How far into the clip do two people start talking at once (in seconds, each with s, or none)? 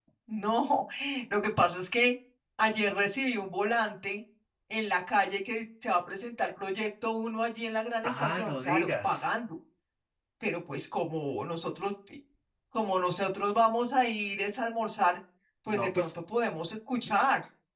8.0 s